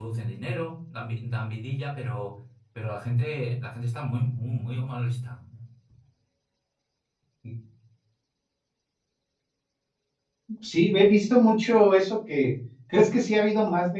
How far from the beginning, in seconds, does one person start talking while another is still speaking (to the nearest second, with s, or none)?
none